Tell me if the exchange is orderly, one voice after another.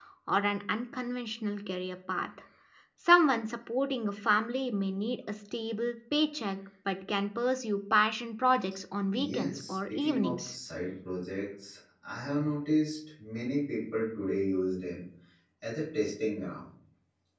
No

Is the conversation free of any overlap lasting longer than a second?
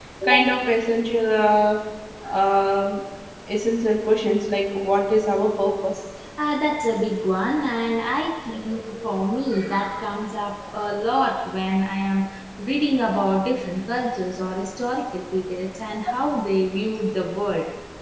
Yes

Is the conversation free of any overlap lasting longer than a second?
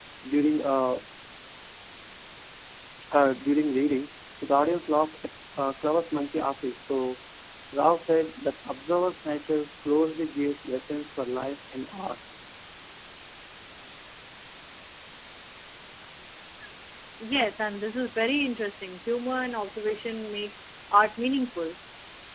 Yes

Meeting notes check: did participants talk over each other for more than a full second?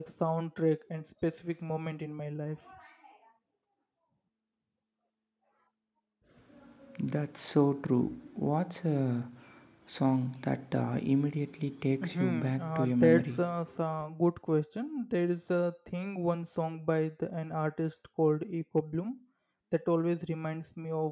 Yes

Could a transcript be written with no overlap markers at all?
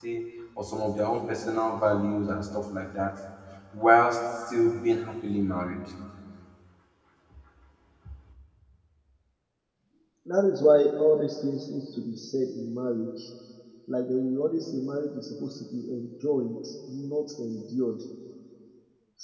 Yes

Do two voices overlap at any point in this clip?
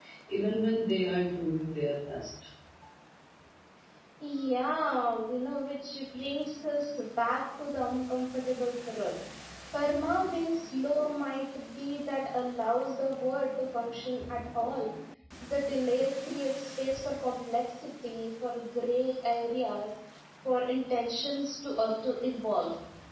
No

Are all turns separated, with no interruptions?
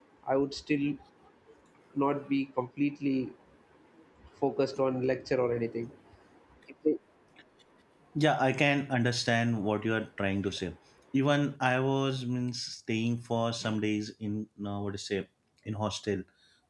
Yes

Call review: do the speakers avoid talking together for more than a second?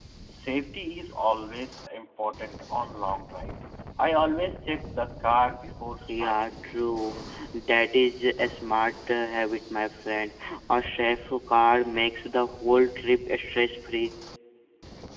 Yes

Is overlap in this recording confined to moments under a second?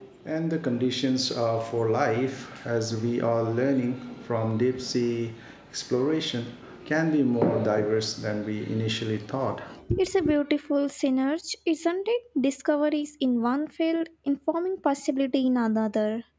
Yes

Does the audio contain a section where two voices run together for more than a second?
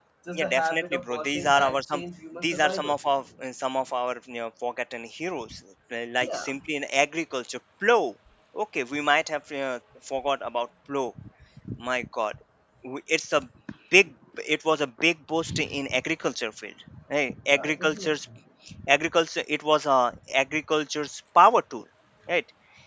Yes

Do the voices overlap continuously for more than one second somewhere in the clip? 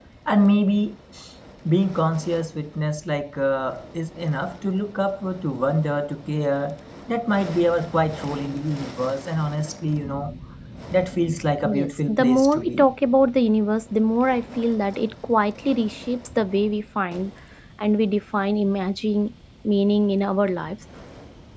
Yes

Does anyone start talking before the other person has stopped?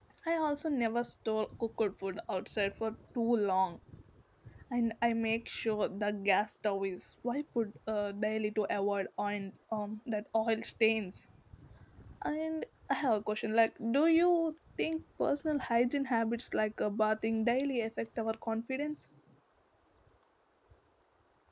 No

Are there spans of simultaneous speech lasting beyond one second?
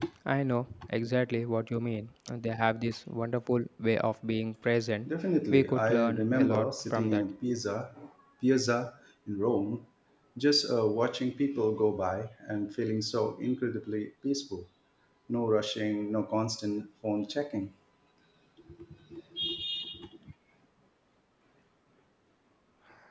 Yes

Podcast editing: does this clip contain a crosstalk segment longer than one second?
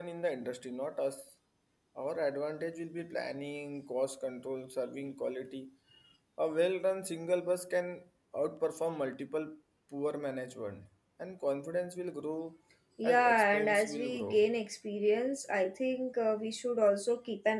Yes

